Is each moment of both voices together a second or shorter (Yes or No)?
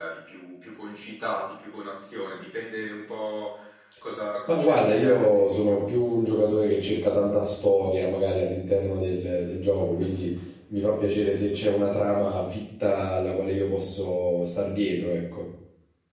No